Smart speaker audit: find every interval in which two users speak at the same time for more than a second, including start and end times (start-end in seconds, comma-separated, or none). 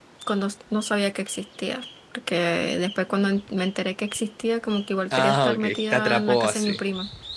5.1-6.8